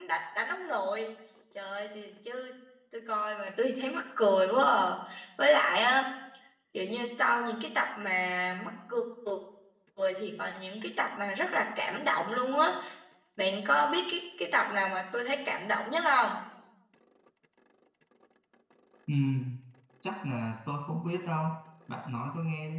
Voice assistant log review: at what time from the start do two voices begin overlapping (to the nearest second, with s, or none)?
none